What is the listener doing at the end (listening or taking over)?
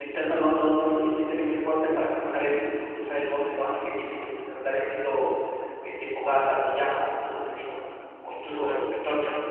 listening